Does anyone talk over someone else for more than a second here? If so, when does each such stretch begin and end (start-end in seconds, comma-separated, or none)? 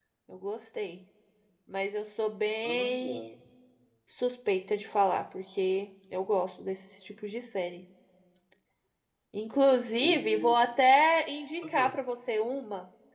none